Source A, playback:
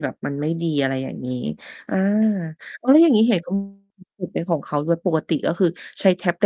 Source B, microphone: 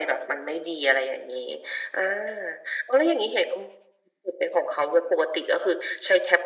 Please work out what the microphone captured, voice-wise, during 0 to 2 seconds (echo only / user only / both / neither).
echo only